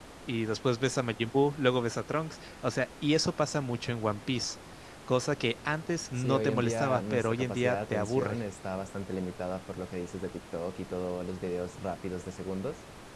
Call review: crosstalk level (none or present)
present